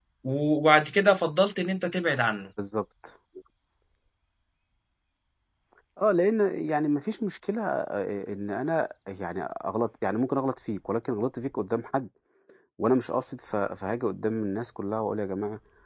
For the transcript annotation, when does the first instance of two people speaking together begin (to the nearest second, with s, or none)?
none